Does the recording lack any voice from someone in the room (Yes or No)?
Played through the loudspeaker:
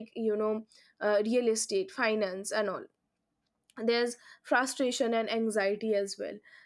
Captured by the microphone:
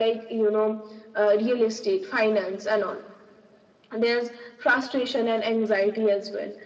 Yes